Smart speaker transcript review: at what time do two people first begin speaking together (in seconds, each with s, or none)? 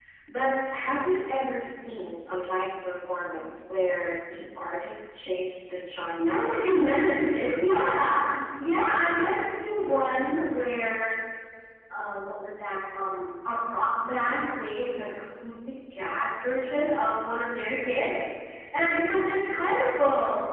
6.2 s